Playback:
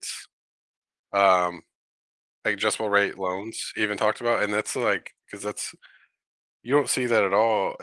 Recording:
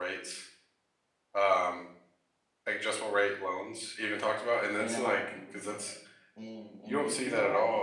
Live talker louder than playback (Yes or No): No